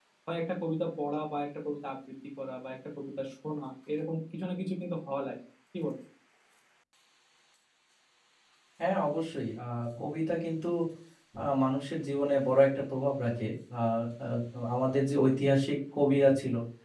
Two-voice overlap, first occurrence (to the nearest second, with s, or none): none